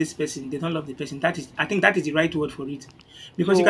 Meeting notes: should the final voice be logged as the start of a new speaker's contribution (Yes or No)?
Yes